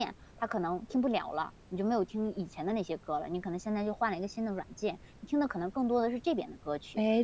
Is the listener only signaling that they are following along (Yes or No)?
No